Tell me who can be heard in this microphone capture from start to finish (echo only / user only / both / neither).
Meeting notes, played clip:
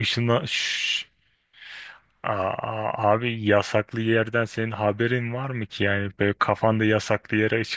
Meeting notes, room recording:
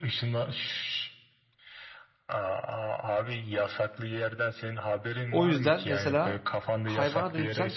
both